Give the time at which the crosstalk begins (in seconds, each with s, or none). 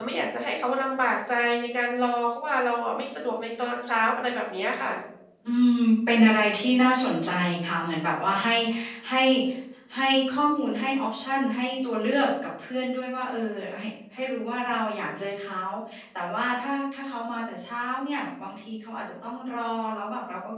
none